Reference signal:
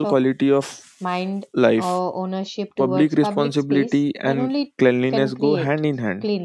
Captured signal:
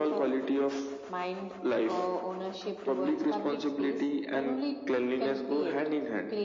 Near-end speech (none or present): none